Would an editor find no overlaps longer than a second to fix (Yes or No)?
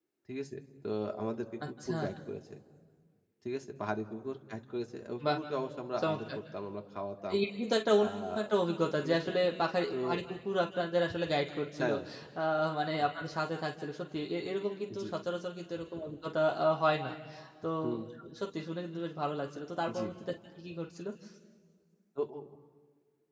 Yes